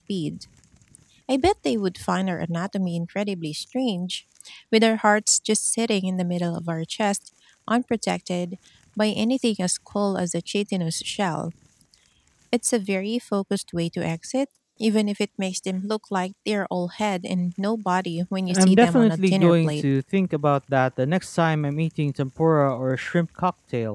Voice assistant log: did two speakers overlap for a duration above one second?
Yes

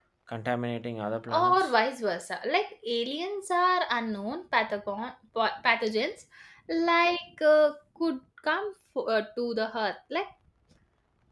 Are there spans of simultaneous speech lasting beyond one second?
No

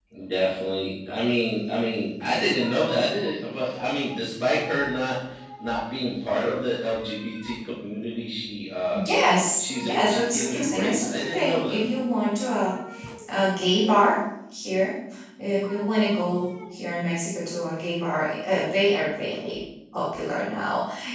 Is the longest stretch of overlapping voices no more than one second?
No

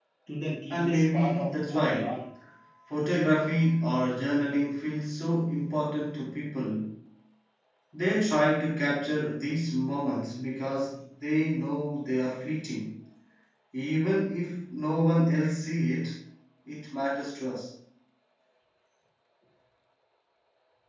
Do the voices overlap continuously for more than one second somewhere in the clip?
Yes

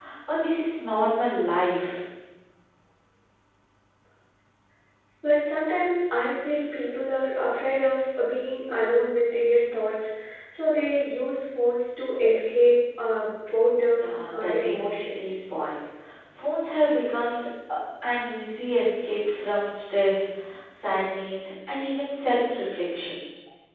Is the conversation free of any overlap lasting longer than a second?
No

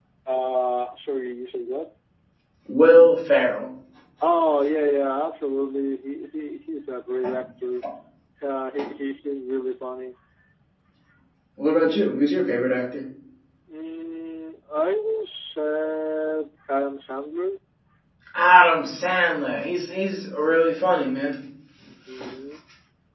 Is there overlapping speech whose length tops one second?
No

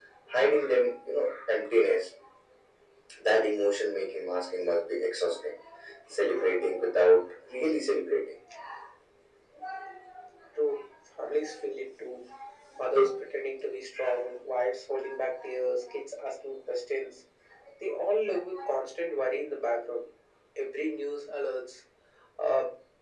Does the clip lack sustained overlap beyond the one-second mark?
Yes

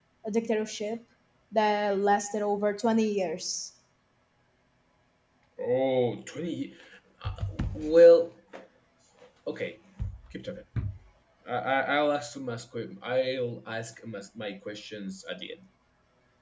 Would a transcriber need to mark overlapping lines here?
No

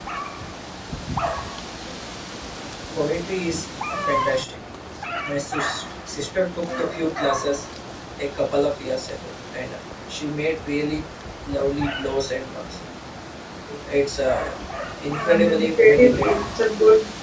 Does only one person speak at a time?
No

